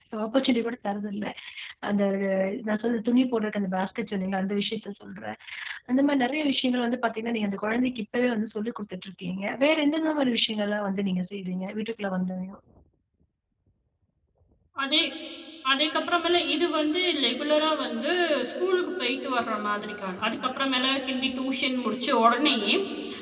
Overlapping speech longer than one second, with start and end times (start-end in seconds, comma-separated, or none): none